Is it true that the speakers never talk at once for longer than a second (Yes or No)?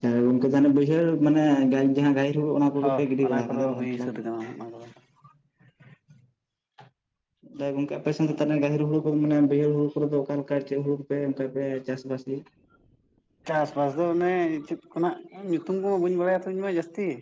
No